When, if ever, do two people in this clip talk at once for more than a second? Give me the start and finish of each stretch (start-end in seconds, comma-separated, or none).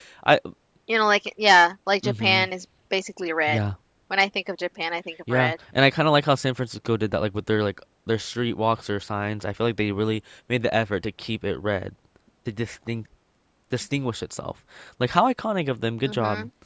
none